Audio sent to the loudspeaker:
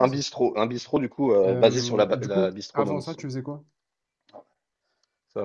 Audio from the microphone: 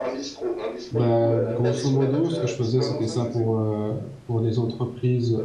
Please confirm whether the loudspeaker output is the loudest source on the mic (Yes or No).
No